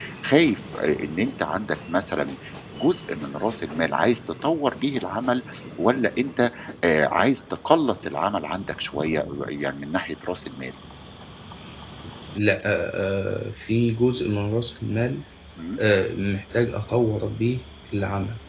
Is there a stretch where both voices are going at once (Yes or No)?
No